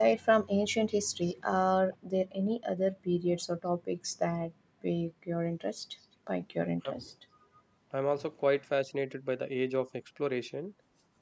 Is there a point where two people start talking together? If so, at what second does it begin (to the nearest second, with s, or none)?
none